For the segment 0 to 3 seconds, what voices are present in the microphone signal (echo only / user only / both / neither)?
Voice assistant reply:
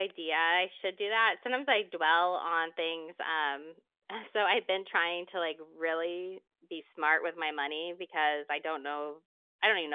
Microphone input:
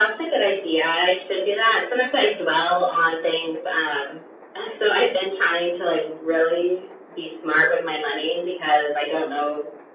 echo only